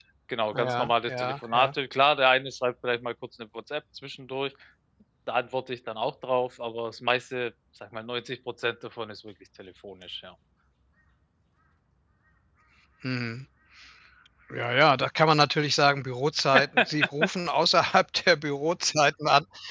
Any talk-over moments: Yes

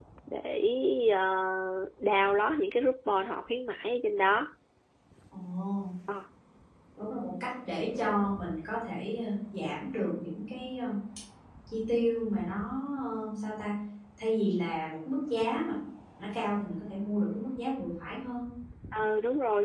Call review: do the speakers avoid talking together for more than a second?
Yes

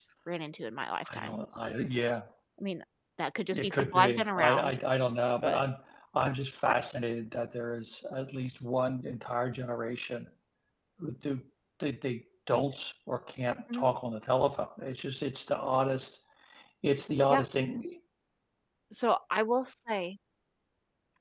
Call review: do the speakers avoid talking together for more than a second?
No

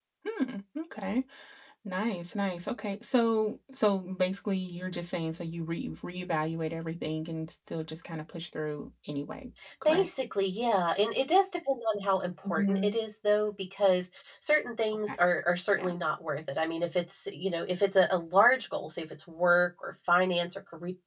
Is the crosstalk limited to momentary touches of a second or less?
Yes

